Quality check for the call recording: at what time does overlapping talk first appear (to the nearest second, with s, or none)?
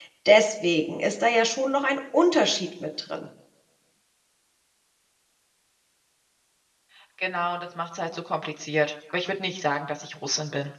none